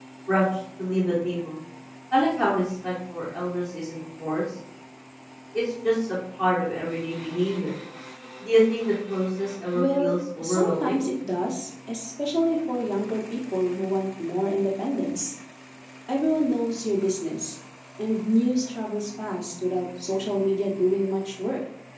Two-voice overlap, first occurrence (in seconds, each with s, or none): 9.8 s